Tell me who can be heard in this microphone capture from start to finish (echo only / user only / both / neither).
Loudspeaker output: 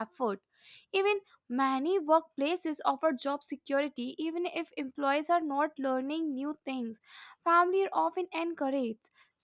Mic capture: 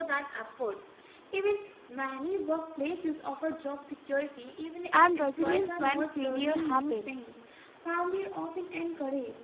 both